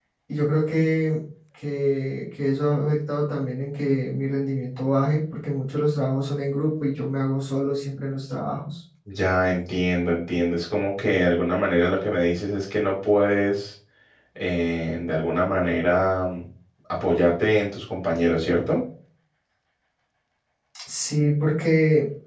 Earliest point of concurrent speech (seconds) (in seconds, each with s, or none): none